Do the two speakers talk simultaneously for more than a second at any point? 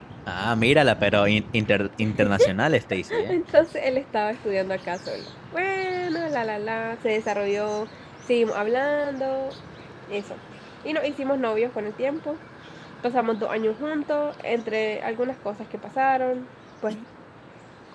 No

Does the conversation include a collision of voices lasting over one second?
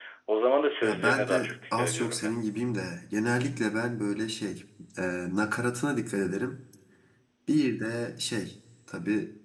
Yes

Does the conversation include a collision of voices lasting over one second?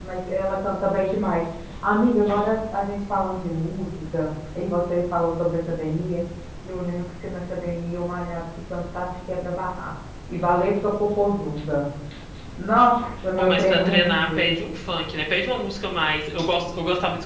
Yes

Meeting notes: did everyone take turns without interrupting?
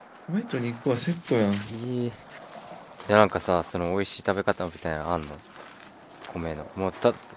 Yes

